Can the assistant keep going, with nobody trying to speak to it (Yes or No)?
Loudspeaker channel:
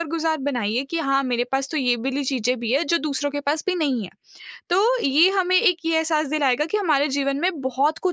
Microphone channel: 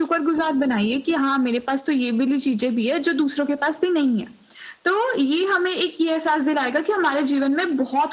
Yes